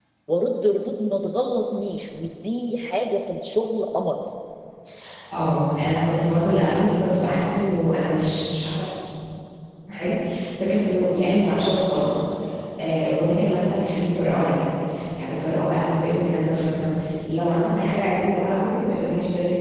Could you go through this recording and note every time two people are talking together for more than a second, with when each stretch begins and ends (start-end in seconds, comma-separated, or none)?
none